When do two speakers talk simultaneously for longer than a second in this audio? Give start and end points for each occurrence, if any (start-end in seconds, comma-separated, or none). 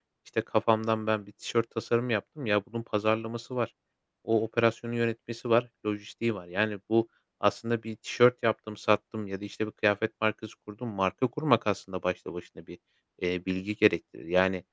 none